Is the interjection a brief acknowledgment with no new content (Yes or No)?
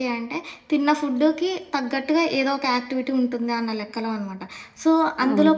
Yes